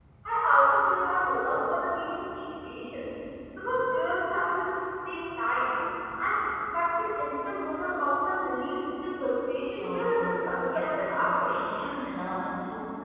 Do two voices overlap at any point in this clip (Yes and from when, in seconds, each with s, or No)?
Yes, from 9.8 s